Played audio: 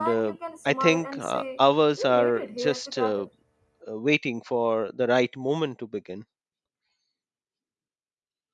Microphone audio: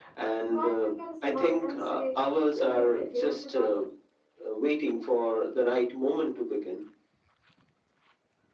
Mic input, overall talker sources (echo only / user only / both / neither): echo only